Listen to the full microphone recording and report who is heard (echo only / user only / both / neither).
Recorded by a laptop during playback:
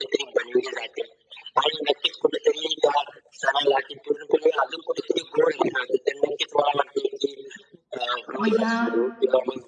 both